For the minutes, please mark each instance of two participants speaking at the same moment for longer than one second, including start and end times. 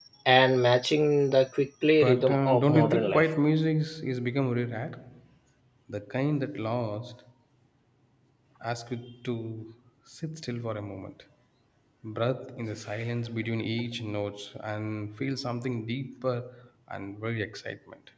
2.0-3.3

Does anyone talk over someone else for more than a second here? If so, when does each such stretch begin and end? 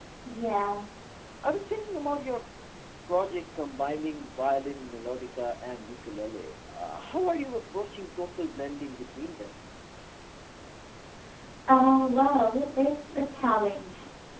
none

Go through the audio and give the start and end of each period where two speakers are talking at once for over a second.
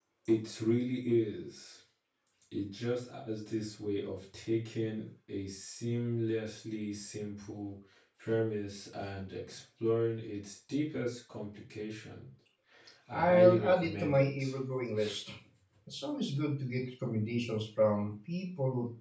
13.3-14.5

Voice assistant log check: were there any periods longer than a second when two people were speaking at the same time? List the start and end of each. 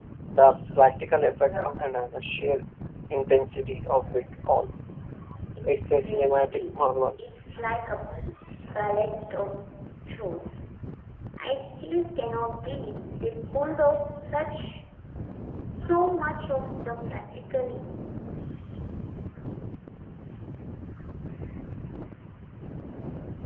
5.6-6.9

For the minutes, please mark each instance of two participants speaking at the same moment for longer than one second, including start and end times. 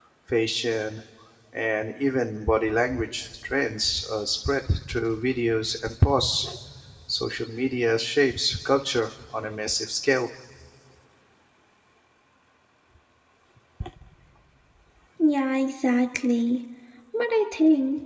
none

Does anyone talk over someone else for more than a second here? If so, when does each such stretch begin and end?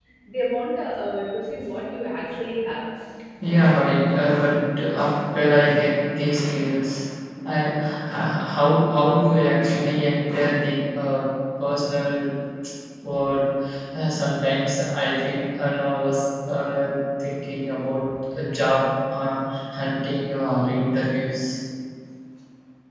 none

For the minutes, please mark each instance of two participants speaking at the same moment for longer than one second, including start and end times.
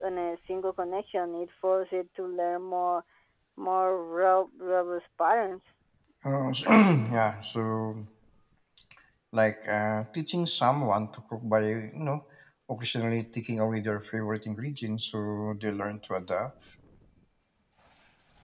none

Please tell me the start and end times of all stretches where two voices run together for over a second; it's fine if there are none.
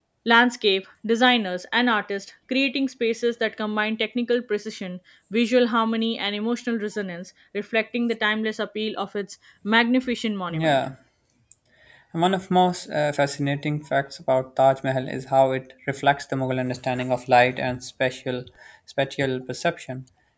none

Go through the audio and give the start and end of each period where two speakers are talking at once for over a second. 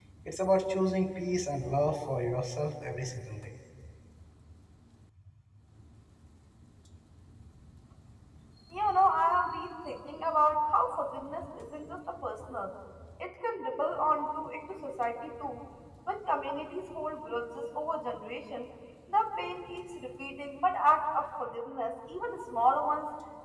none

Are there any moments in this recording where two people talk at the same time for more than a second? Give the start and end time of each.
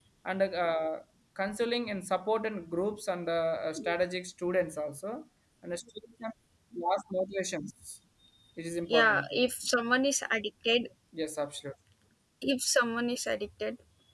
none

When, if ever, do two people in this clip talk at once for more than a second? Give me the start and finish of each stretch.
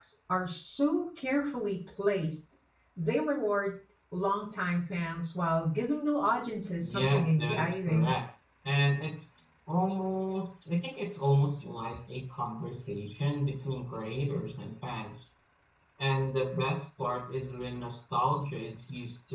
6.8-8.2

